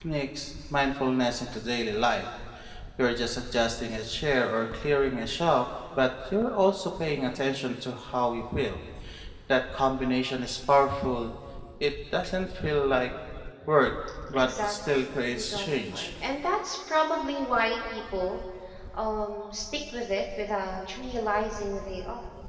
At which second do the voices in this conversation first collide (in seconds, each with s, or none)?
14.3 s